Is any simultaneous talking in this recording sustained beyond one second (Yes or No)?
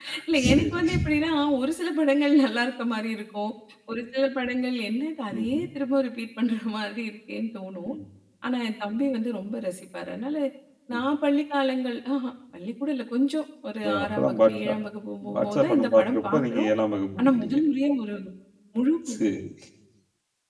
Yes